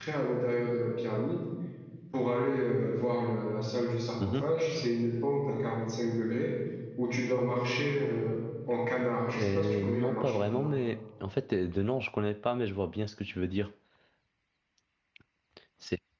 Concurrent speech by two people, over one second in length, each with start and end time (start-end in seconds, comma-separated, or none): 9.4-10.7